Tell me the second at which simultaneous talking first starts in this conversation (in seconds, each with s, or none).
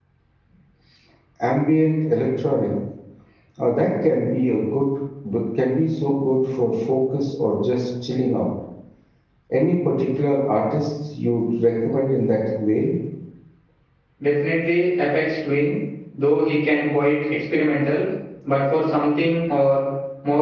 none